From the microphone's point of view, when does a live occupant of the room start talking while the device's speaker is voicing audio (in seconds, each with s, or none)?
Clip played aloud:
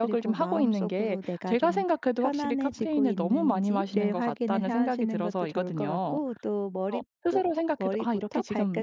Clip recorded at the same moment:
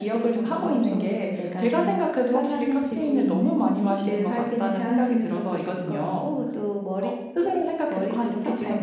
none